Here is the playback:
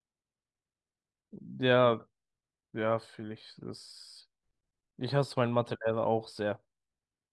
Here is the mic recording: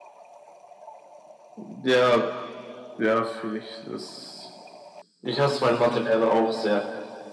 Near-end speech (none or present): none